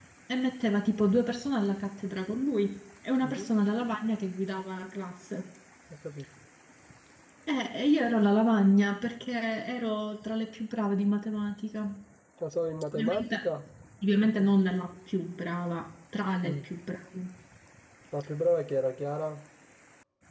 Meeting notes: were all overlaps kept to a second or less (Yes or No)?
Yes